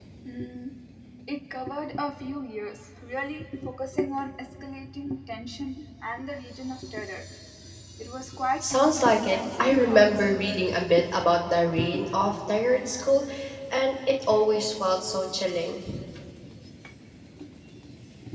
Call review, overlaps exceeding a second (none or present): present